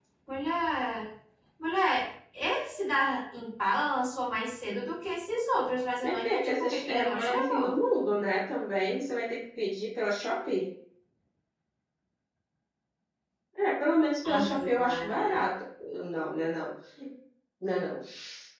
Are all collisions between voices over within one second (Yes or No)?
No